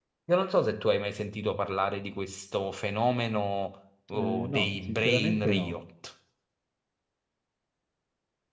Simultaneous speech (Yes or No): Yes